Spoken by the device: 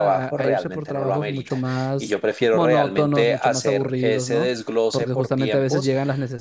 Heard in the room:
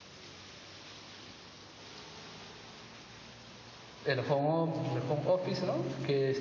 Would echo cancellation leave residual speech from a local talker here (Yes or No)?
Yes